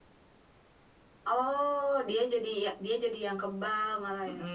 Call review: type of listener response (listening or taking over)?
taking over